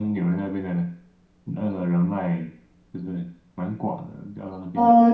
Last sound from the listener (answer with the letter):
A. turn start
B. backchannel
A